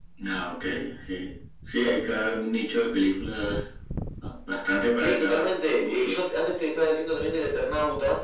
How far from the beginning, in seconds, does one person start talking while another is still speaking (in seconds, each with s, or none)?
5.0 s